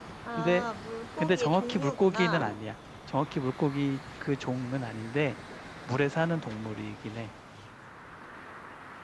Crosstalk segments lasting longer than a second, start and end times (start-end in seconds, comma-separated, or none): 1.2-2.5